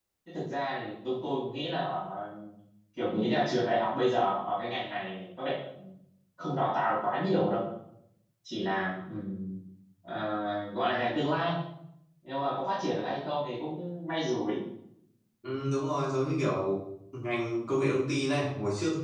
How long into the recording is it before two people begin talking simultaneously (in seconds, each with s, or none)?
none